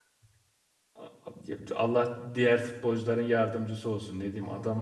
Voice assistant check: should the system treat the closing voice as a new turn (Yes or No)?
No